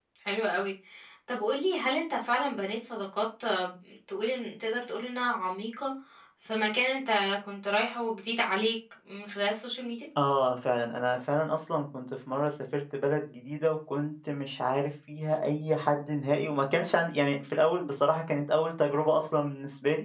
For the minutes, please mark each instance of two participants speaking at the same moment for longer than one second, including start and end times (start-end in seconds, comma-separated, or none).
none